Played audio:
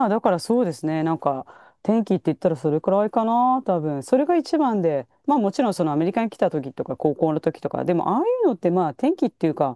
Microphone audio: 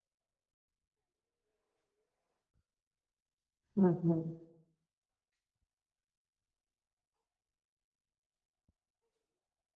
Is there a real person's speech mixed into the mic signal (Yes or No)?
Yes